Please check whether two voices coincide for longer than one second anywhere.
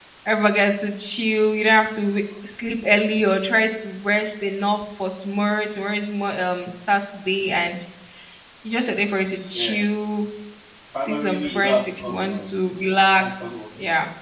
Yes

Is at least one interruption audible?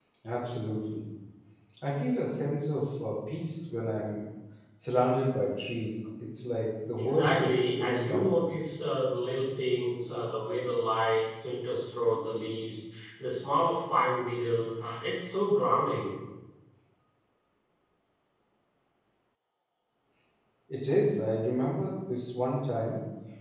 Yes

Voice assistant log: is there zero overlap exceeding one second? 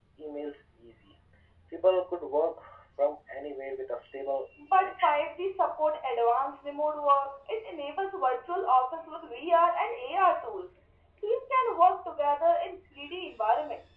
Yes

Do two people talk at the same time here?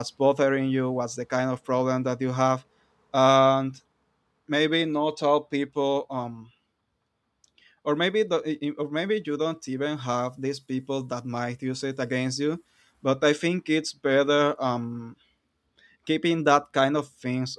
No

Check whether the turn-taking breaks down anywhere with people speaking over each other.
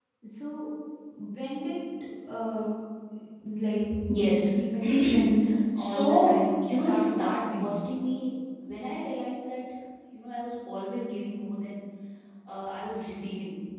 Yes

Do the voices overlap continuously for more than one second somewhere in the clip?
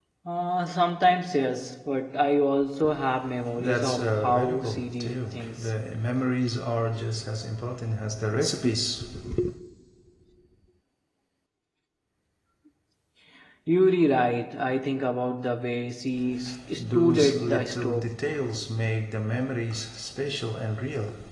Yes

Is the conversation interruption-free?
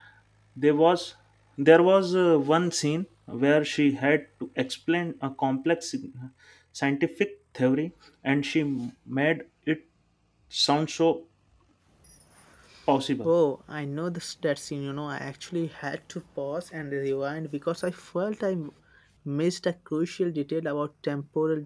Yes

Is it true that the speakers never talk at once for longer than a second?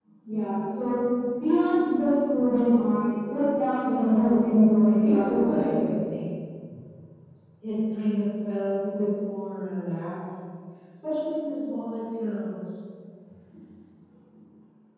No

